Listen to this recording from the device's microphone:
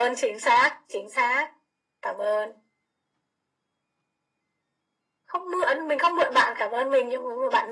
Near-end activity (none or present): none